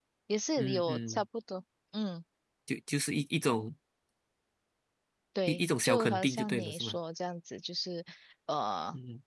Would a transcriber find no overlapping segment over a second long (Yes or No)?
No